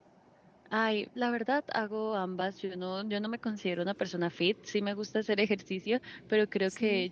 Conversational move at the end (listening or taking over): listening